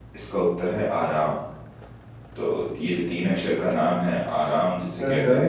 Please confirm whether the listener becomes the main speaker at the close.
No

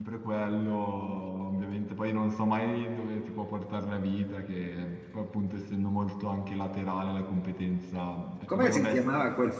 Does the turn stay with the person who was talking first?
No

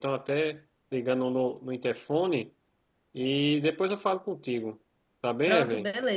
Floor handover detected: Yes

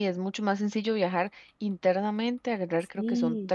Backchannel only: Yes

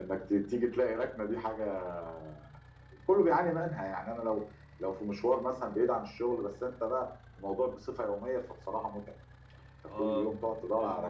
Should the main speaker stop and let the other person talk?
Yes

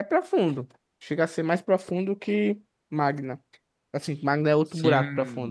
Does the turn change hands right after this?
Yes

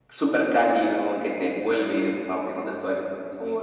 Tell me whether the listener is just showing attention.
No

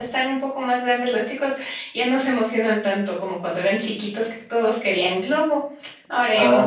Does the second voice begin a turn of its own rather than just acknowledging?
Yes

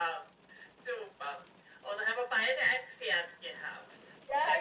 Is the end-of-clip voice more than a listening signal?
Yes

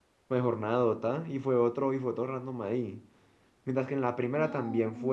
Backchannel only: Yes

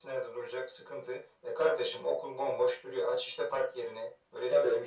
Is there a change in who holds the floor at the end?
No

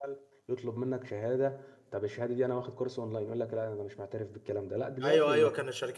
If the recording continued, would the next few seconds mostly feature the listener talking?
Yes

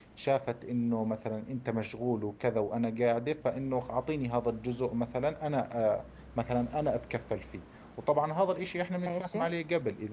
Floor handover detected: No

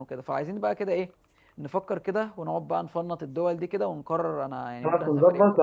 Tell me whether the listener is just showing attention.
No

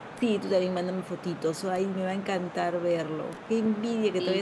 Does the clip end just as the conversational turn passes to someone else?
No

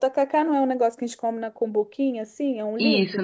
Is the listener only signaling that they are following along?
No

